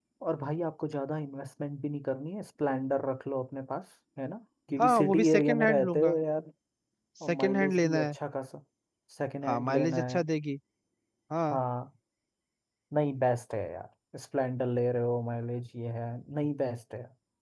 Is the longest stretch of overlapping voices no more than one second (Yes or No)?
No